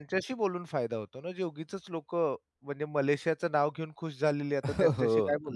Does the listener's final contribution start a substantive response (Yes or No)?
Yes